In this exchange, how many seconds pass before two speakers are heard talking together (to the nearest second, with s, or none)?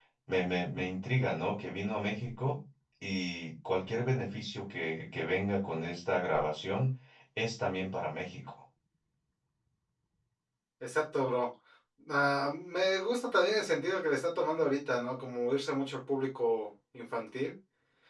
none